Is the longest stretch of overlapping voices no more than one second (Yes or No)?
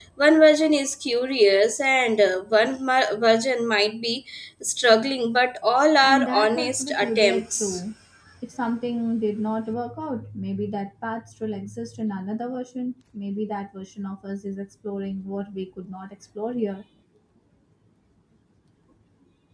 No